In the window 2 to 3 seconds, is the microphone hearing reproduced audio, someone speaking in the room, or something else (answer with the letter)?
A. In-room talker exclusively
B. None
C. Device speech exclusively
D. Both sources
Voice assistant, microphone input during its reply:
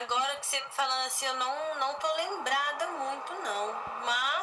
C